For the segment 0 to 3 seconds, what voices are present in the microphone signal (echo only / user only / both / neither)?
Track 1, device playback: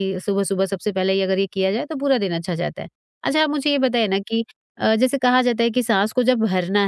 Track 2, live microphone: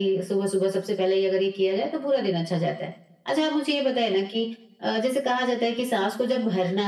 echo only